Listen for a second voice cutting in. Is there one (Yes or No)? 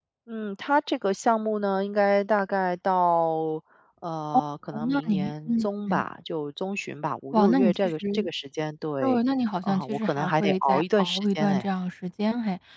Yes